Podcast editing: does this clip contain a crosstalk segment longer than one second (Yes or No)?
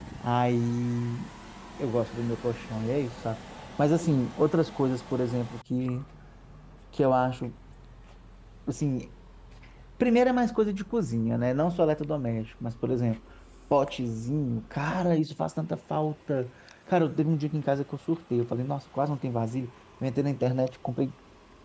No